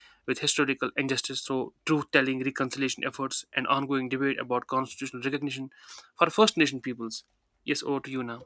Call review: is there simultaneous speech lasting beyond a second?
No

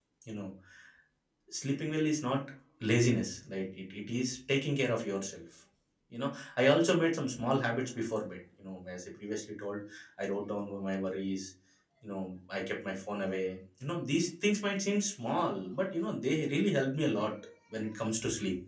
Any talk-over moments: No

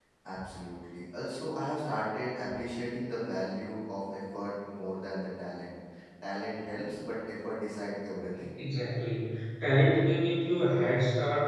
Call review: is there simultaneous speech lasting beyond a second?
No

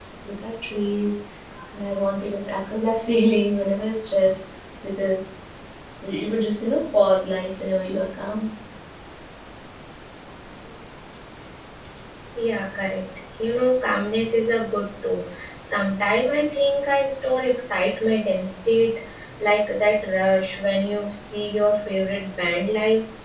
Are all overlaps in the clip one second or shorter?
Yes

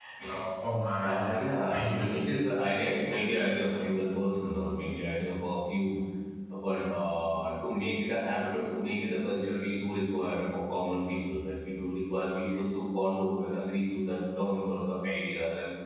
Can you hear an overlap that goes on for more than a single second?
Yes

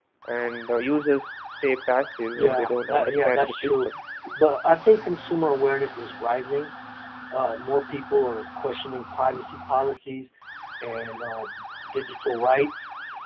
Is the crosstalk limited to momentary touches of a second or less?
No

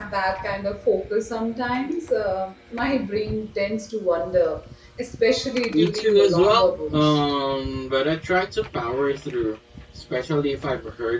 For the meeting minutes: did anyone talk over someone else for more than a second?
Yes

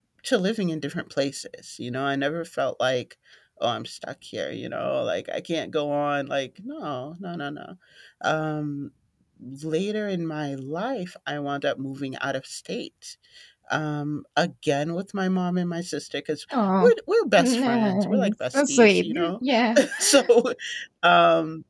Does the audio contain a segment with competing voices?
Yes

